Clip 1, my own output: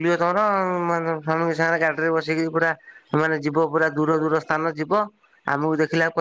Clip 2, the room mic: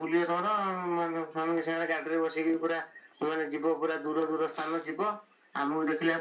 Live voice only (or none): none